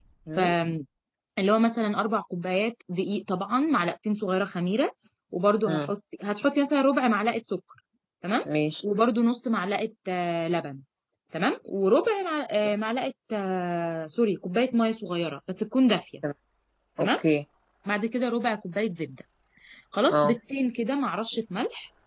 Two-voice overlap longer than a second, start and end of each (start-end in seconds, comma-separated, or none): none